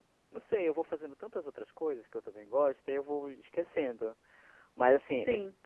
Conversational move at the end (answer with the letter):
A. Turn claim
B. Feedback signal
B